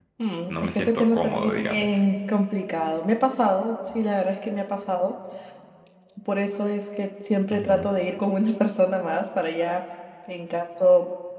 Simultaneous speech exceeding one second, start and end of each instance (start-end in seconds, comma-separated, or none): 0.5-1.9